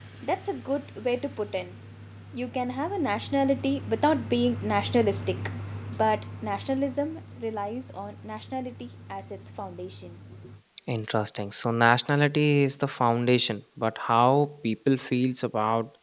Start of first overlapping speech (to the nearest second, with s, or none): none